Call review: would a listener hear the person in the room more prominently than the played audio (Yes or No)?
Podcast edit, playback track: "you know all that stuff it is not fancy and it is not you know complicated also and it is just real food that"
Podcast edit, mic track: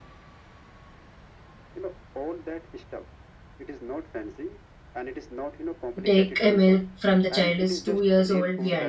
Yes